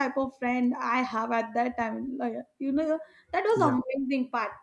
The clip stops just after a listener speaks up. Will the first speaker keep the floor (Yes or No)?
Yes